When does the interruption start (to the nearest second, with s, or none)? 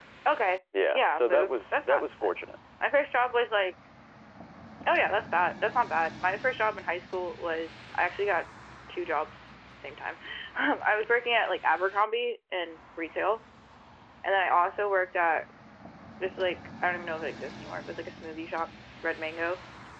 1 s